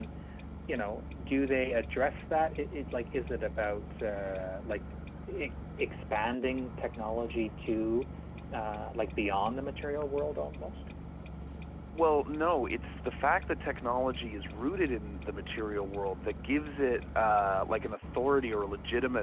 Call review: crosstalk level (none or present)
none